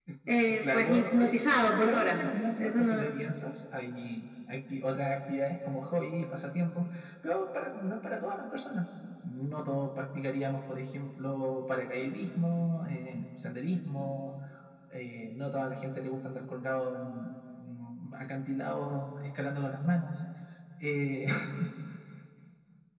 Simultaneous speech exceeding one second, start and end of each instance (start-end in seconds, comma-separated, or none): 0.6-2.2